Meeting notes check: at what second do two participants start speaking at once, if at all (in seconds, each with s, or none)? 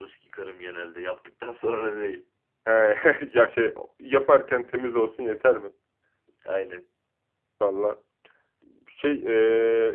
none